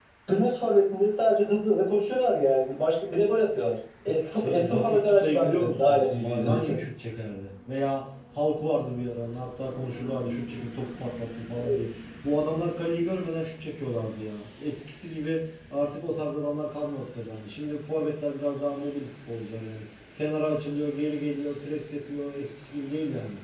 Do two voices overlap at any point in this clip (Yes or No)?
Yes